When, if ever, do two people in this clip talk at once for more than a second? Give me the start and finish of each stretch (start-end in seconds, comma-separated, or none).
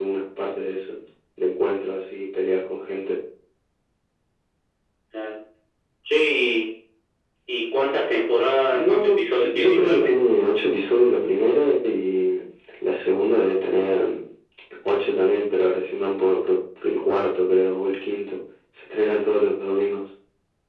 8.7-10.1